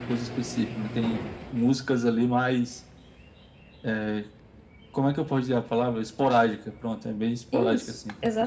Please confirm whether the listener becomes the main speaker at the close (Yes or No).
Yes